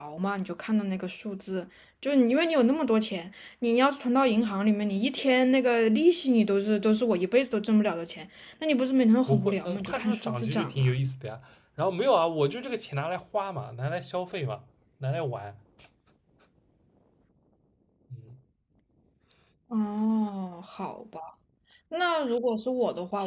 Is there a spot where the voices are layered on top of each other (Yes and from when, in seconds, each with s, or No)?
Yes, from 9.3 s